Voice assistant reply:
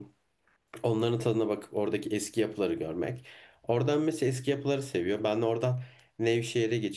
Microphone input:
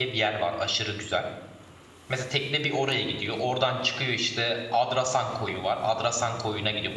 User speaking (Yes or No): Yes